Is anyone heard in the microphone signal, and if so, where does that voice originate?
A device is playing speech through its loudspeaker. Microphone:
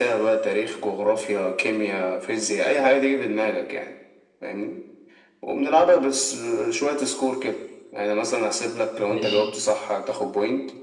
both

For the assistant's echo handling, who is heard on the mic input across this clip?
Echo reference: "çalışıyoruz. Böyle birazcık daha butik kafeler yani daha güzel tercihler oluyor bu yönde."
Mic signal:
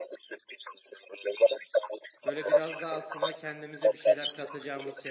both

